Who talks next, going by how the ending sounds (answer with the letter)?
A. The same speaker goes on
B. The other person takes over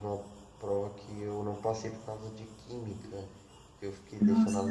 A